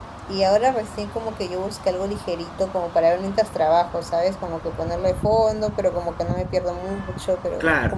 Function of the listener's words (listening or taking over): listening